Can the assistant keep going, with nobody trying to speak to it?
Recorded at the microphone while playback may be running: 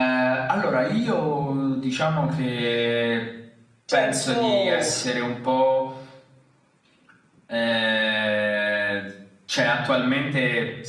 No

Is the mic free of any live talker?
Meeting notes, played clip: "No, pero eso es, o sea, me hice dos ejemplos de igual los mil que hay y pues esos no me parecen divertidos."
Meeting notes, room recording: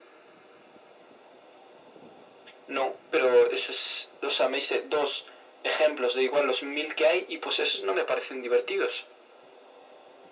Yes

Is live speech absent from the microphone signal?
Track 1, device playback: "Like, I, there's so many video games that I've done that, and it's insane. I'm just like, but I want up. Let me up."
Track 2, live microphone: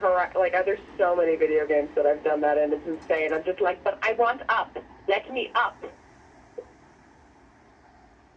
Yes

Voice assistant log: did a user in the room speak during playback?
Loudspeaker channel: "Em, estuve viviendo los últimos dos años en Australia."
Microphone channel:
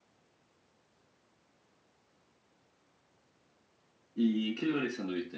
Yes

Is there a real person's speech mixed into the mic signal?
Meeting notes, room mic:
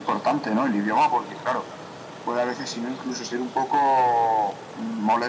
No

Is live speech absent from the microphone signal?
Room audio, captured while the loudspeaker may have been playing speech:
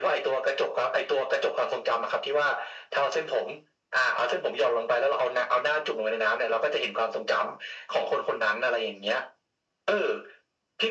Yes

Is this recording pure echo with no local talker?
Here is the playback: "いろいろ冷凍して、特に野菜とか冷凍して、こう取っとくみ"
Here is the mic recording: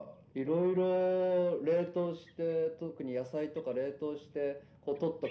Yes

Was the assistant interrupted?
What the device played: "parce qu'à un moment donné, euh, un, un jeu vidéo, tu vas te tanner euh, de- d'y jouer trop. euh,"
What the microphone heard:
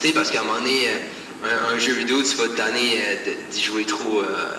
No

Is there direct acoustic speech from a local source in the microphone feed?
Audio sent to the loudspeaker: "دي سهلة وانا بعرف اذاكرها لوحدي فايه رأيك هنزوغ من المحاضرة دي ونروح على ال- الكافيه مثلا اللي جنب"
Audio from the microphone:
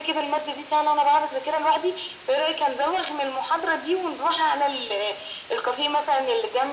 No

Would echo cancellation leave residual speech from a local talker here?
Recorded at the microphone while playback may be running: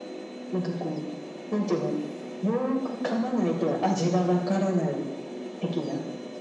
No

